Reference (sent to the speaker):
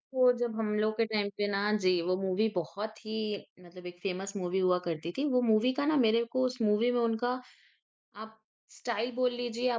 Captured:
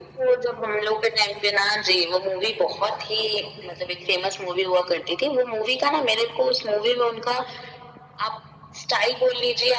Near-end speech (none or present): none